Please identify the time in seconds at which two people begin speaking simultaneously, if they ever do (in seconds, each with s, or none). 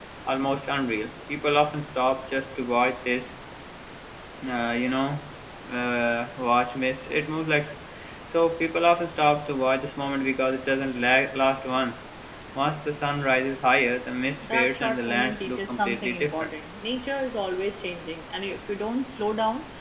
14.4 s